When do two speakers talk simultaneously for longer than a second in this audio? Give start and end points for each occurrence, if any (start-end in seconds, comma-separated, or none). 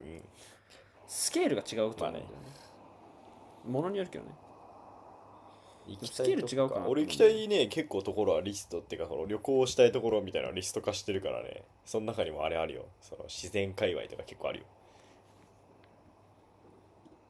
6.2-7.4